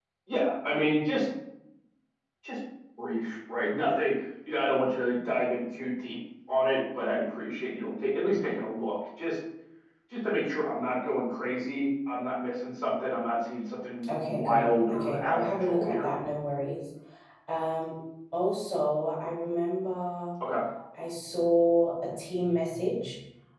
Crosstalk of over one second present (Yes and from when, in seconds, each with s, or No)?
Yes, from 14.0 s